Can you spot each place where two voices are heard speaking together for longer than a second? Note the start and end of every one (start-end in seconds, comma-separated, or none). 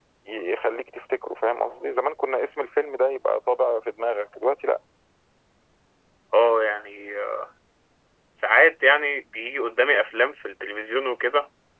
none